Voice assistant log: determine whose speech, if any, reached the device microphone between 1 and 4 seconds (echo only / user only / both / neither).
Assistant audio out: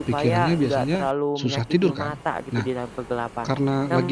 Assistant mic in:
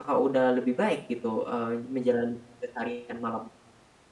user only